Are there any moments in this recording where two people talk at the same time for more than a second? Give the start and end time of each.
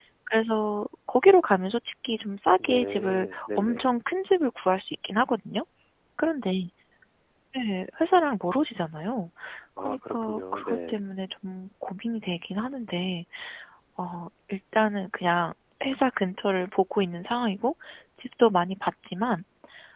2.6-3.9, 9.8-11.0

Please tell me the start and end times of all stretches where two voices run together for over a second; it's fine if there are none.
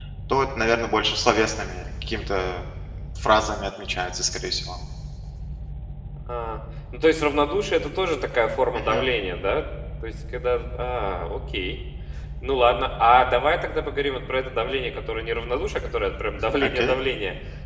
none

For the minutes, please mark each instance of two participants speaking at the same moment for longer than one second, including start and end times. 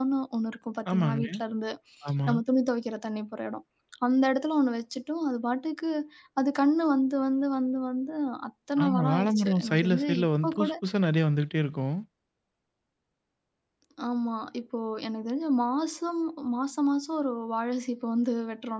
8.8-10.7

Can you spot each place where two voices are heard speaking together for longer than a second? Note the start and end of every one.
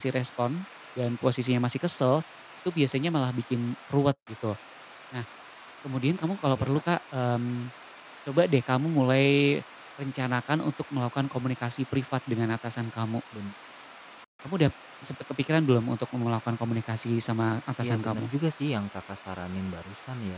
none

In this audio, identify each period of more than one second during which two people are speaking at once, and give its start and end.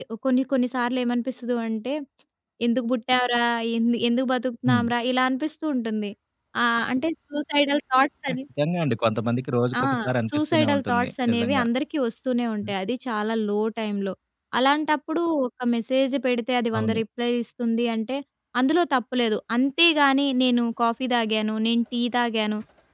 10.3-11.6

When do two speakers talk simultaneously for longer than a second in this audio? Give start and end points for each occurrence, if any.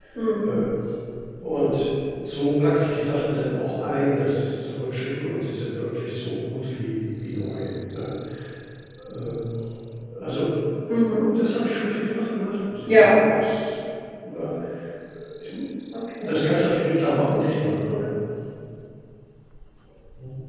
none

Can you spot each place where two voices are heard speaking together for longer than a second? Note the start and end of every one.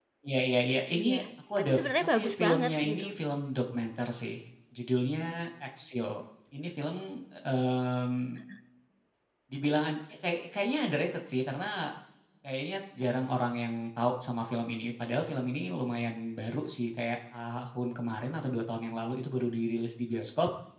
1.6-3.1

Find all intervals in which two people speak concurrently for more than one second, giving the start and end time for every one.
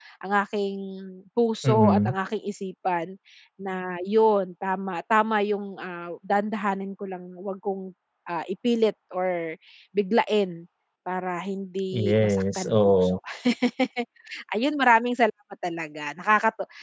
11.9-13.2

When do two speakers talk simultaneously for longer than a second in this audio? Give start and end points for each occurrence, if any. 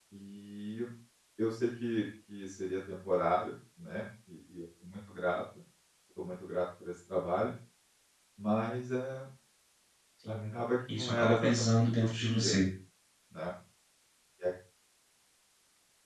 10.9-12.5

